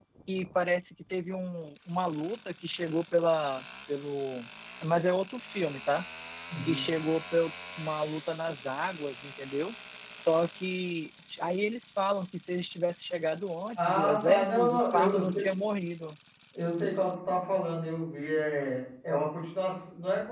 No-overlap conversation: No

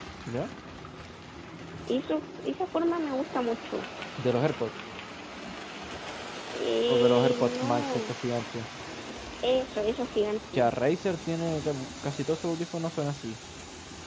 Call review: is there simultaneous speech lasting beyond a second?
Yes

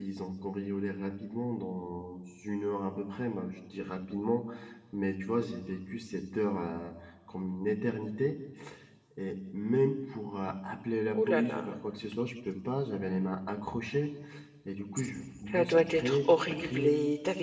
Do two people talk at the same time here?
Yes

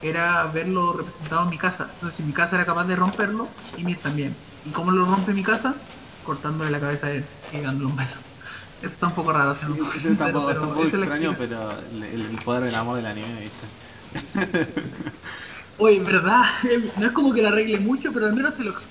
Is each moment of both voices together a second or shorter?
No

